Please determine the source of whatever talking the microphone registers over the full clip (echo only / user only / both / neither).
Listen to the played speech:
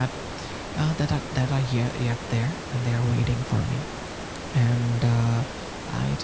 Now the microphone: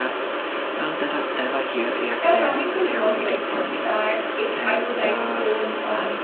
both